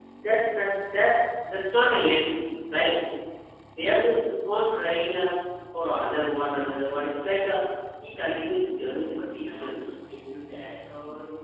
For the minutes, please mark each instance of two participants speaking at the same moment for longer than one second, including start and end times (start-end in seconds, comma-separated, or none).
8.8-10.0